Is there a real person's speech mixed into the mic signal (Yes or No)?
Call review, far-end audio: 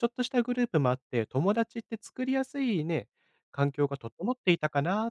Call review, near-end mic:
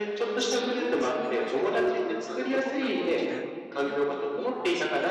Yes